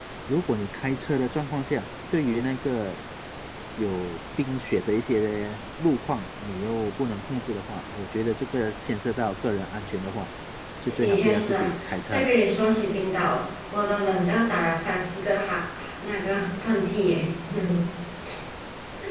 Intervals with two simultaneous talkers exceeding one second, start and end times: 11.0-12.3

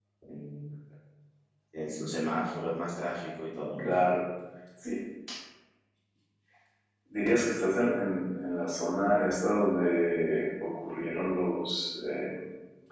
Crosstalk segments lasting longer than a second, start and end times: none

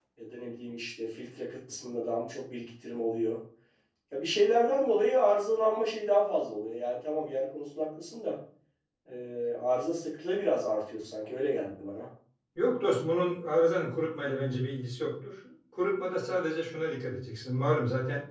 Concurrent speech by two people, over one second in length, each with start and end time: none

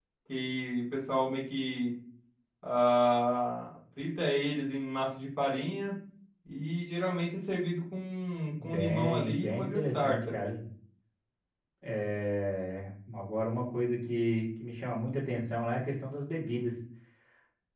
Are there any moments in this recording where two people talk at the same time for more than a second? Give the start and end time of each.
8.6-10.4

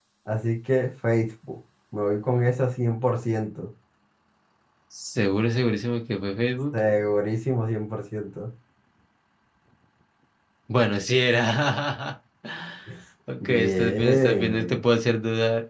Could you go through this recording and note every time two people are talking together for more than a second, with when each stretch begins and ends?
13.4-14.8

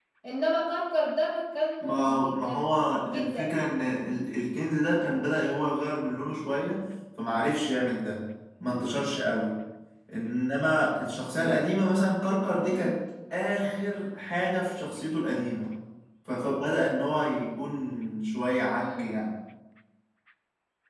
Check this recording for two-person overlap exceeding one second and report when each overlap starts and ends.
1.8-3.5

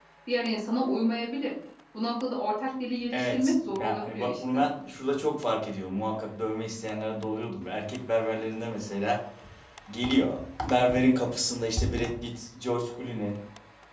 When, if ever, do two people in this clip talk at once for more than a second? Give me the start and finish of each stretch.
3.1-4.6

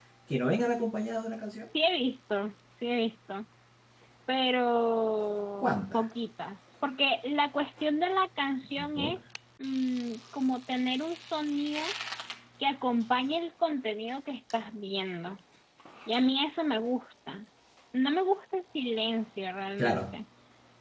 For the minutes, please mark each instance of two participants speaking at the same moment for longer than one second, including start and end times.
none

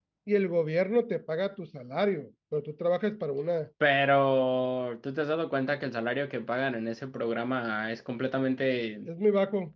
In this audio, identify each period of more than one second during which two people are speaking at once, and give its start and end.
none

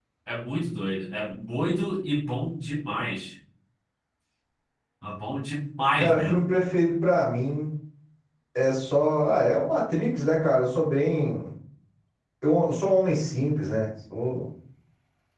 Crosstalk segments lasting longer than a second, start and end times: none

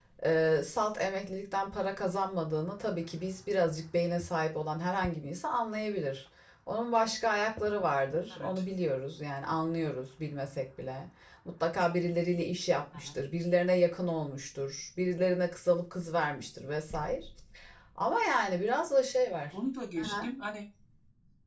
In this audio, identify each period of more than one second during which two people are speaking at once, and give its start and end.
none

